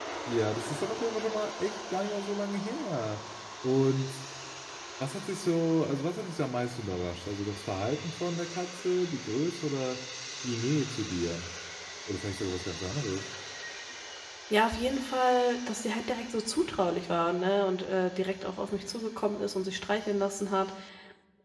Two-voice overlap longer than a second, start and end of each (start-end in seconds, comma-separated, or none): none